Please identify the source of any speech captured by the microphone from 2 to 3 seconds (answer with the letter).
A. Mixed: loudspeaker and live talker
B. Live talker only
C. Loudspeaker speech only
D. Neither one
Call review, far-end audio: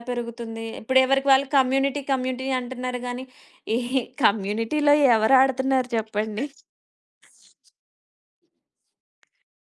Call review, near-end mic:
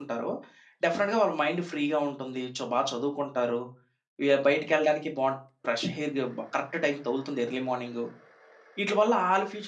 B